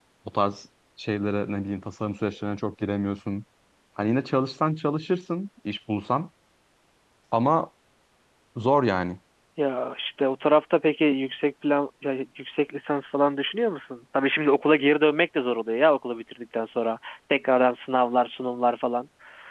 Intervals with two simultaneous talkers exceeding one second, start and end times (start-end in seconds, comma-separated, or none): none